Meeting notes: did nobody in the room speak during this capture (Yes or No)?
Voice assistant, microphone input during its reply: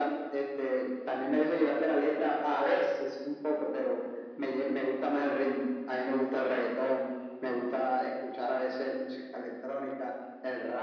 Yes